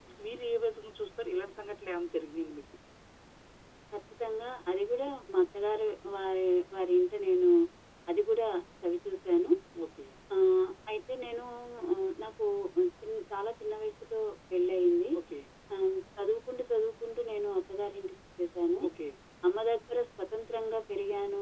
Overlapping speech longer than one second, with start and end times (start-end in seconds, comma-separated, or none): none